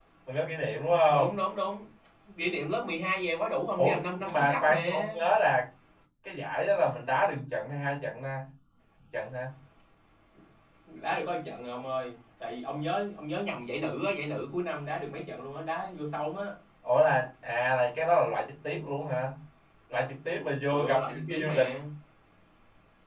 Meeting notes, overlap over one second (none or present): present